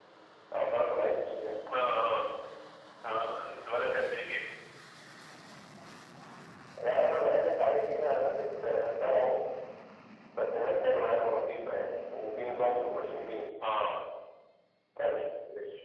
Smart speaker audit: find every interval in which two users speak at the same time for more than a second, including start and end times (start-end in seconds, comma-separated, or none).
none